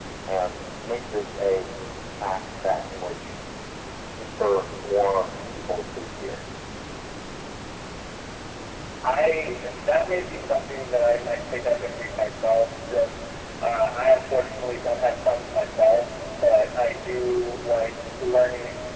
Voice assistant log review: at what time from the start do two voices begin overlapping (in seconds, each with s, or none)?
none